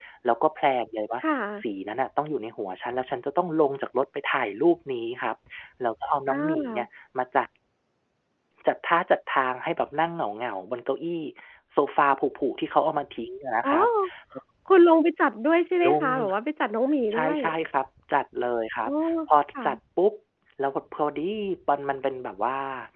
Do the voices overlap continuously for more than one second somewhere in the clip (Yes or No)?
No